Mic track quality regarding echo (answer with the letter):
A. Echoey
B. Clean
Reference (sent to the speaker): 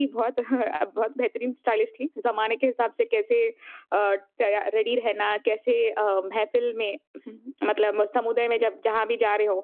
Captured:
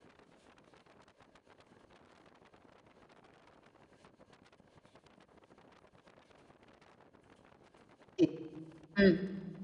B